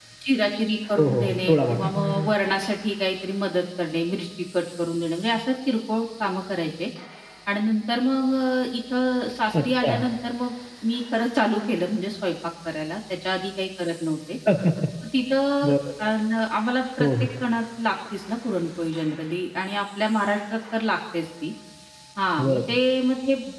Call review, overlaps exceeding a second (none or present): present